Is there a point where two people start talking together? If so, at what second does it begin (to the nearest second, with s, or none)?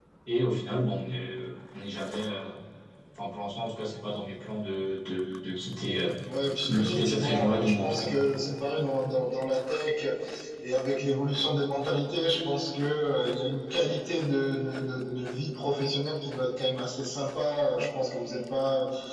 7 s